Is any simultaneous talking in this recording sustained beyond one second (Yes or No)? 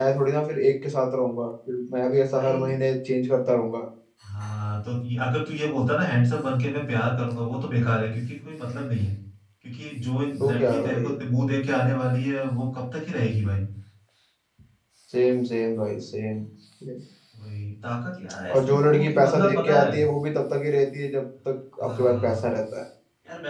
Yes